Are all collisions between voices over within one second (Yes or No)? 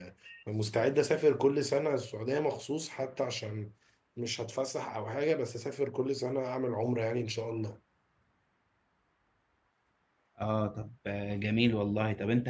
Yes